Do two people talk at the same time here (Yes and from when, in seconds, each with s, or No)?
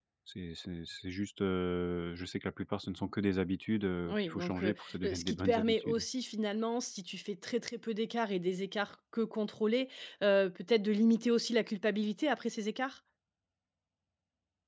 Yes, from 4.0 s